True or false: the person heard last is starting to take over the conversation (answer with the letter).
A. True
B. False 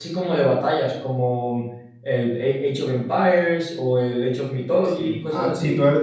A